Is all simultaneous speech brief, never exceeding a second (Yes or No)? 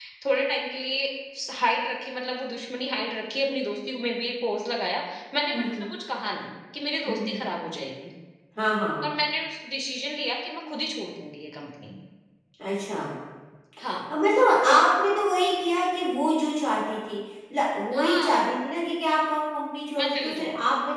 Yes